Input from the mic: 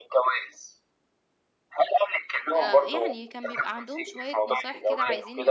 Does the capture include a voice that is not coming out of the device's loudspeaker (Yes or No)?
Yes